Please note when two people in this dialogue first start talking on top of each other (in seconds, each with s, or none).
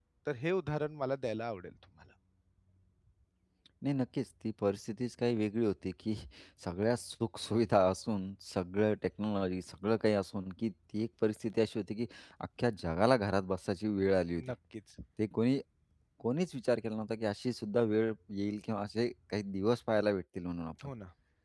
none